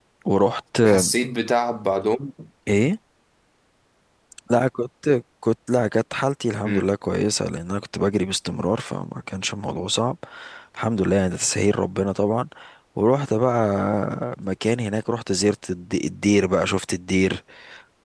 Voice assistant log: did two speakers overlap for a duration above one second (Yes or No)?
No